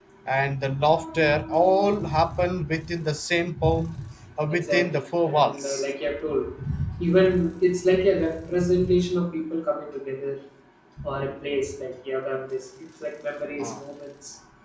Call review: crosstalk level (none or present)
present